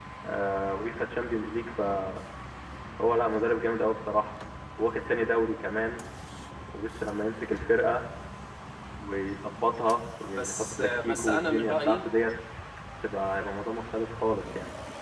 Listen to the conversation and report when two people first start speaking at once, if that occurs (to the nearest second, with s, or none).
10 s